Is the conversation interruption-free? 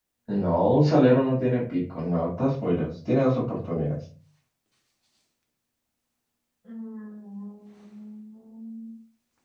Yes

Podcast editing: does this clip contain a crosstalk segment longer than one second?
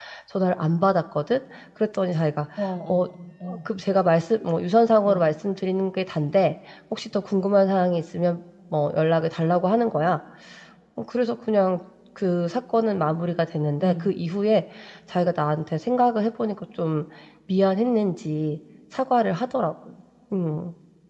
No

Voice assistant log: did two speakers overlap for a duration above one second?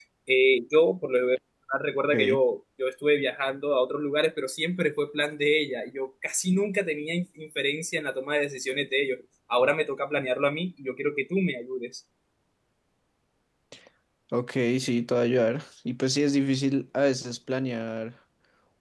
No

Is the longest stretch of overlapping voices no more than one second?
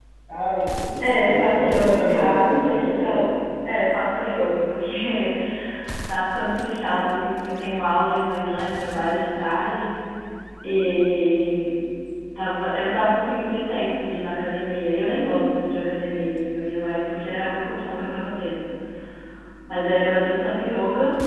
No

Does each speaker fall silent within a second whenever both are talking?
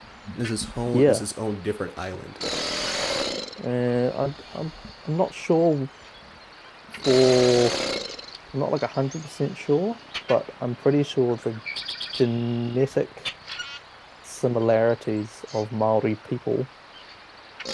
Yes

